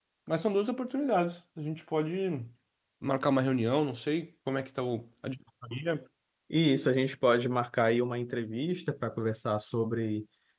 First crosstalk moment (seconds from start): none

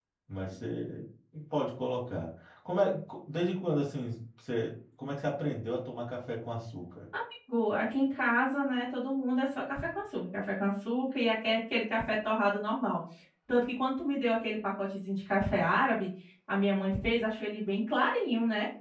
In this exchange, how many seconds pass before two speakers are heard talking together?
none

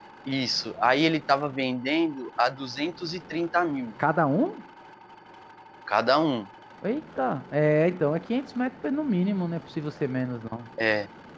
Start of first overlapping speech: none

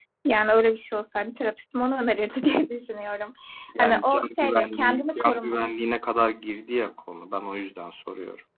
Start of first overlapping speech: 4 s

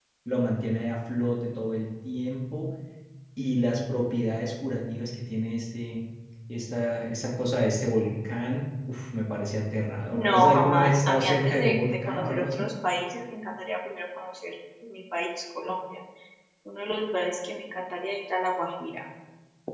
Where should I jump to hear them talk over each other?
10 s

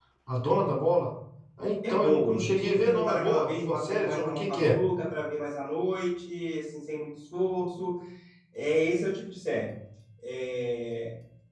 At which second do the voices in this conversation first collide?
2 s

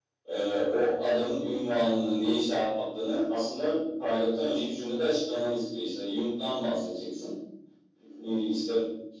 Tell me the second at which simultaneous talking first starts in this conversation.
none

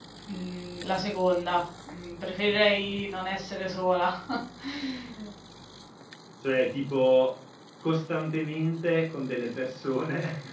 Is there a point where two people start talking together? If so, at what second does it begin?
none

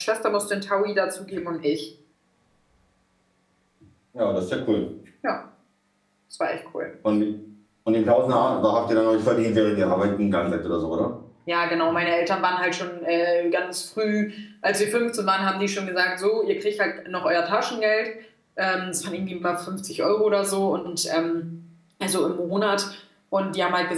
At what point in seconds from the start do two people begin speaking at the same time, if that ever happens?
none

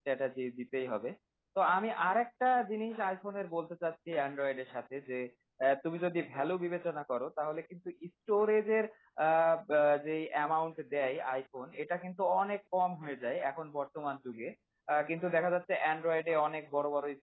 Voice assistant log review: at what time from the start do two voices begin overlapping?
none

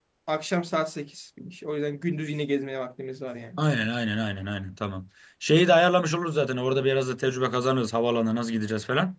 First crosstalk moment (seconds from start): none

